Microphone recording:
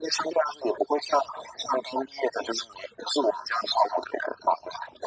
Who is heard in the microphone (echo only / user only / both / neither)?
echo only